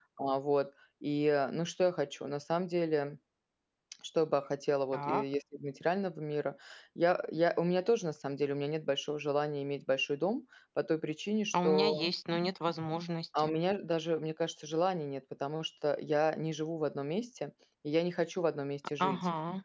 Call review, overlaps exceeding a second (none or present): none